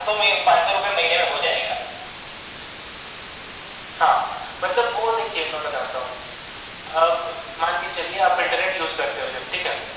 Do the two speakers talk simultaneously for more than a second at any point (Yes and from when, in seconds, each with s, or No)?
No